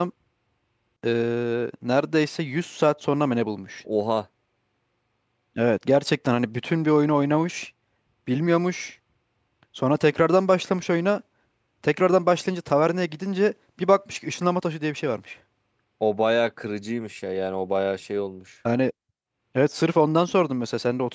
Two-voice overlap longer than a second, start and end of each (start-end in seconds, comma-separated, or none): none